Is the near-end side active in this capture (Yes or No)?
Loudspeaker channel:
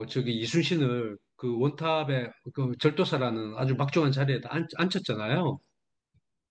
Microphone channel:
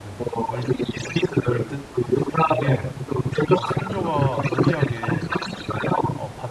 Yes